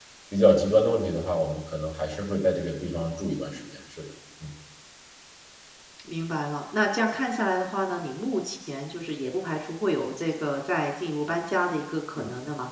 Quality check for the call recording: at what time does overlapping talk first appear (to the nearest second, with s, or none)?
none